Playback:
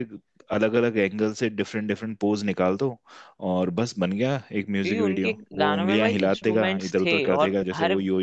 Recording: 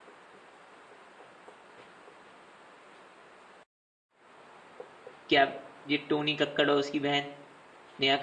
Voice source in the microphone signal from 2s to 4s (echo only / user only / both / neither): neither